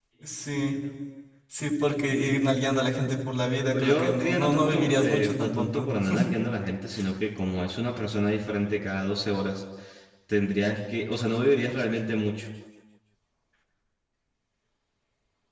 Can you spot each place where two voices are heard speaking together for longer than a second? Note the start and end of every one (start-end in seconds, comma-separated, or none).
3.7-5.9